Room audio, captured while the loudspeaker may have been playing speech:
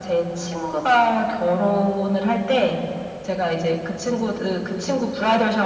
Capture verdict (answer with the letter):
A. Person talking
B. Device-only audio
B